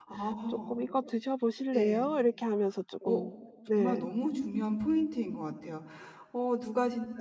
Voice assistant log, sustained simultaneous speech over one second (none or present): none